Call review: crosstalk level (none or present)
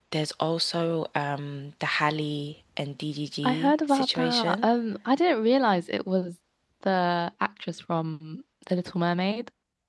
present